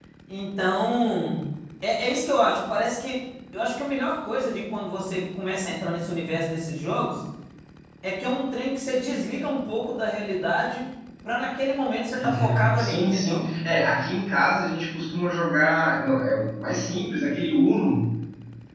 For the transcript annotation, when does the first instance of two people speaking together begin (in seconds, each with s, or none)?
12.2 s